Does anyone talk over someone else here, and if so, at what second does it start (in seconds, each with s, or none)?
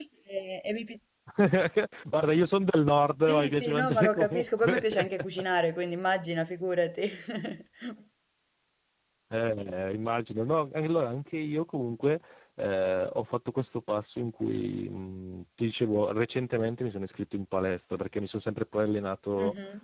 3.3 s